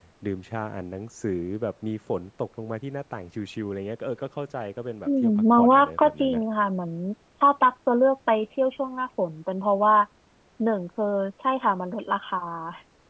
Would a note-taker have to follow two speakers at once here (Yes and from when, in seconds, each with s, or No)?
Yes, from 5.1 s